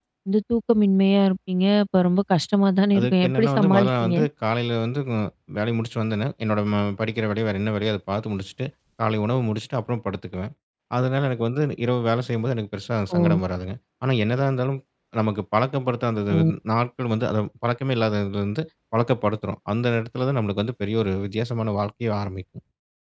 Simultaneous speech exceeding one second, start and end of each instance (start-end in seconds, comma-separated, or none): 3.0-4.2